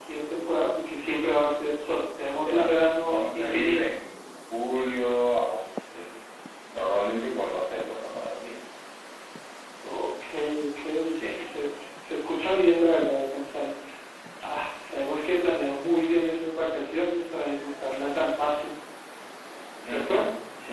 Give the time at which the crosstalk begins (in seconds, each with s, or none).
2.4 s